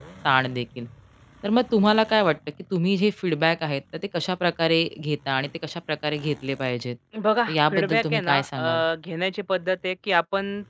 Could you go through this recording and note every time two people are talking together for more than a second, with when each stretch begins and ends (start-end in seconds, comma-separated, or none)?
7.5-8.8